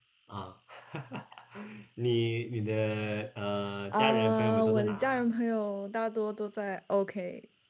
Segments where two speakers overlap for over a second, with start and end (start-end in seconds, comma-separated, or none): 3.9-5.3